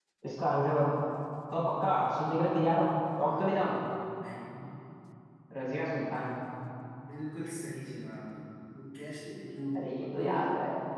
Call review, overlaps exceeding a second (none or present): none